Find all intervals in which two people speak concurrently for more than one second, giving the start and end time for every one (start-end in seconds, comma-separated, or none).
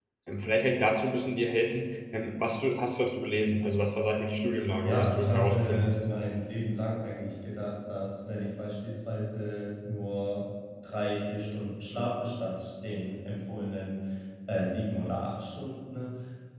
4.8-6.0